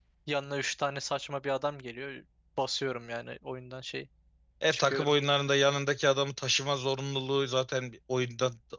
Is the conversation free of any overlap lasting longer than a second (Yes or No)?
Yes